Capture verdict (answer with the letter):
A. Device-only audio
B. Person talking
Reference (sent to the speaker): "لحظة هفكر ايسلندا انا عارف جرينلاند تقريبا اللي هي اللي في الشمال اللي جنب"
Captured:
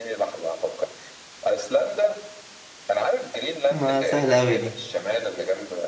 B